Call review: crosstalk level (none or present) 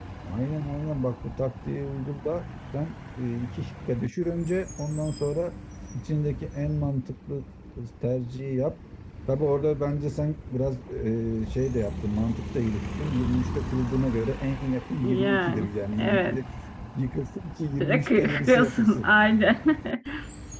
present